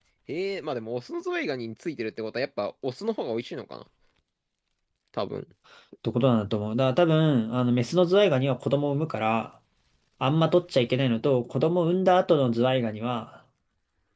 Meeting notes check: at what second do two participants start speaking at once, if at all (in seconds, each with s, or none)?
none